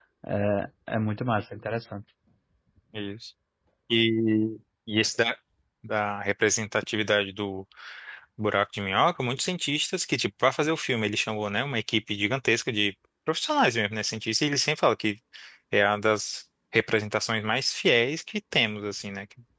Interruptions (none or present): none